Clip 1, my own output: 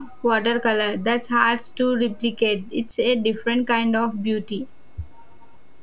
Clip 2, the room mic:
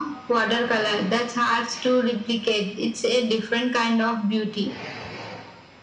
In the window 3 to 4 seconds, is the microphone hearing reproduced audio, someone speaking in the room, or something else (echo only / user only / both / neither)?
echo only